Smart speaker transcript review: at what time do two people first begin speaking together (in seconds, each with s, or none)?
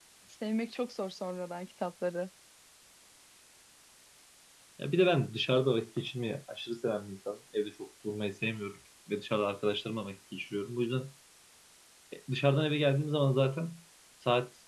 none